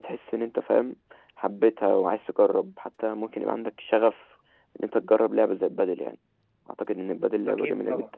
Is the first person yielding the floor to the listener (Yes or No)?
Yes